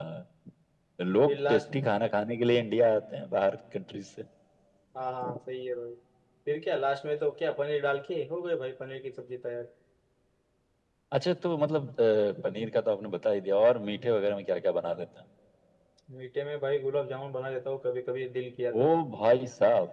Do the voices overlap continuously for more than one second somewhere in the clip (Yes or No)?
No